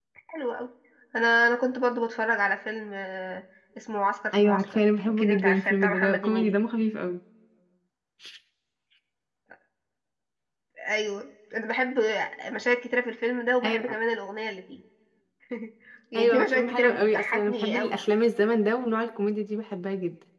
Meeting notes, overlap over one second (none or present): present